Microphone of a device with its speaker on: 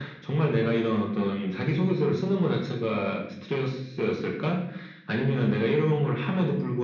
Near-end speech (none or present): none